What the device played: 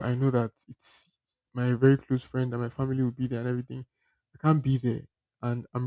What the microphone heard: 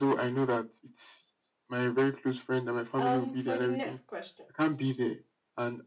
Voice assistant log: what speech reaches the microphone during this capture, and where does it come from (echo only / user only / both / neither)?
both